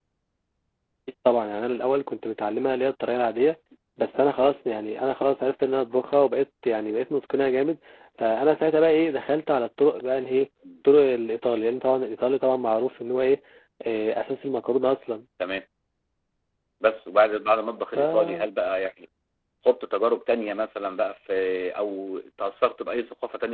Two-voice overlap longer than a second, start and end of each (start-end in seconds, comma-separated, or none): none